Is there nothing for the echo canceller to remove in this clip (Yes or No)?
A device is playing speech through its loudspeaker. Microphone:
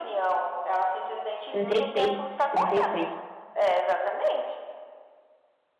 No